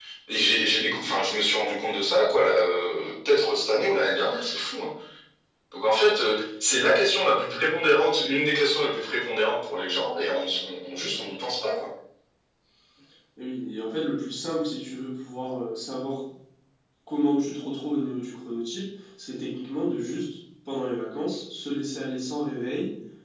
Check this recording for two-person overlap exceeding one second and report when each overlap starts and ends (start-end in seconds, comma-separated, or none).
none